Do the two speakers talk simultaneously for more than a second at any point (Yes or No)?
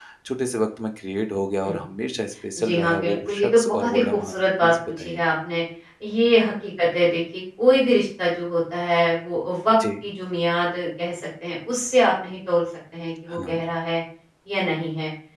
Yes